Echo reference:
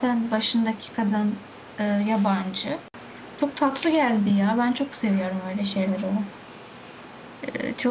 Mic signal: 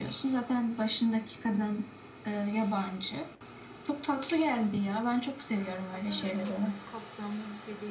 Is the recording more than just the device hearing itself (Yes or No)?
Yes